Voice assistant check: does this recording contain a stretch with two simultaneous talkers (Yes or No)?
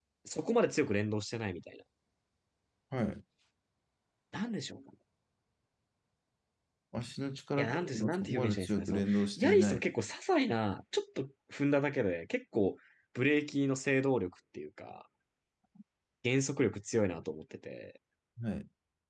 Yes